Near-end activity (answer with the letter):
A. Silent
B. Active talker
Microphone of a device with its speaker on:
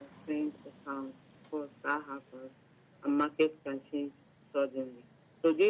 A